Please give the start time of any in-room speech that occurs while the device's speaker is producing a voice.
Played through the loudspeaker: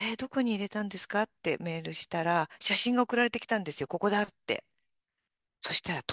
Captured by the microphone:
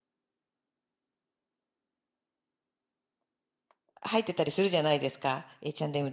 4 s

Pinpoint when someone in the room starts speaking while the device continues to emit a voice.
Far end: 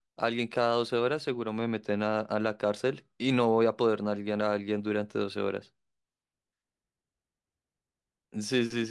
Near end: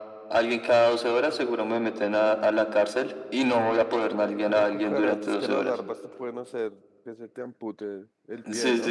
4 s

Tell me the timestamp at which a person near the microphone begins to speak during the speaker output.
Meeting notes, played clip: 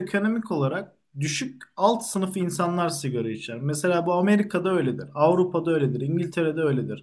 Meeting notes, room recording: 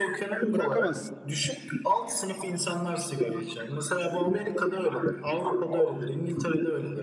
1 s

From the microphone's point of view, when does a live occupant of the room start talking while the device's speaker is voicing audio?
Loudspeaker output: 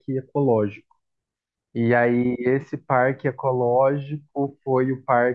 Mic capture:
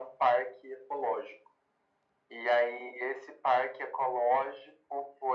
none

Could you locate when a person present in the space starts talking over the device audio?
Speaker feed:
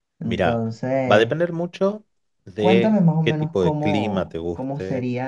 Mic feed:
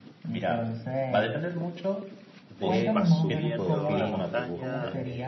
3 s

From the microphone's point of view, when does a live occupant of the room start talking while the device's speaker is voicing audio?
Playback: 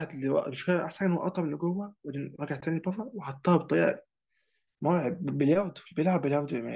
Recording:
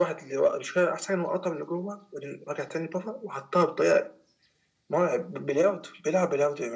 none

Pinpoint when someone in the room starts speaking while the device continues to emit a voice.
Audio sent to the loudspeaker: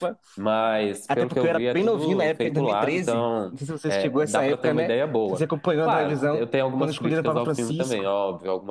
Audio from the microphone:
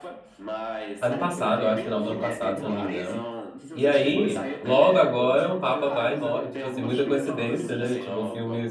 1 s

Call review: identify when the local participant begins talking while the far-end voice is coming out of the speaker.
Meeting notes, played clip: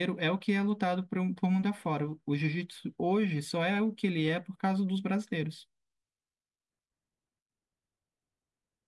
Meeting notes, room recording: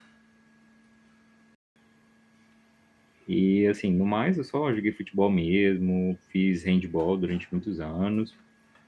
3 s

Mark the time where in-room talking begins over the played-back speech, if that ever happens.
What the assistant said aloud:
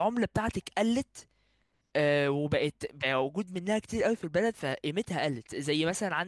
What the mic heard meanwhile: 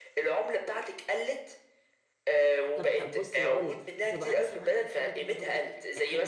3 s

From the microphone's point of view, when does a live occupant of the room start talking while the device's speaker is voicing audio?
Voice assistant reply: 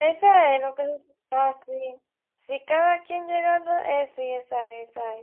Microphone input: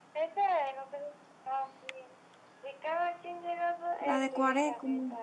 4 s

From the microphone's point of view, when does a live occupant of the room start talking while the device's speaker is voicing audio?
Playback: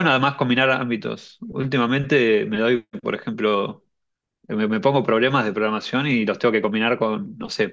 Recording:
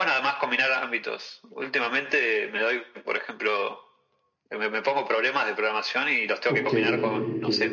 6 s

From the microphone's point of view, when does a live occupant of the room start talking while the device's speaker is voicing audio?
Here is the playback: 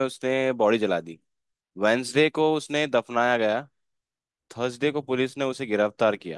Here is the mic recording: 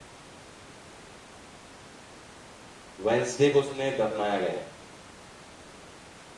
3 s

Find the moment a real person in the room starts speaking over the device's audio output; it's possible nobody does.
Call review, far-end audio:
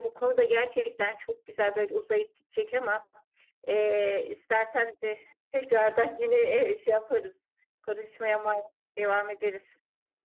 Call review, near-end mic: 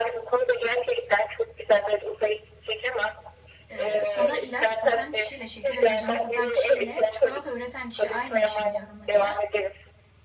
4 s

